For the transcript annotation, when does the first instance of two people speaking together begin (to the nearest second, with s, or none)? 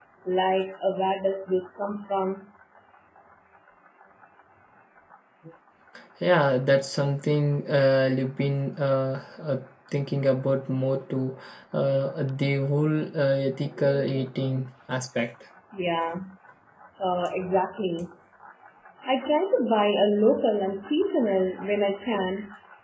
none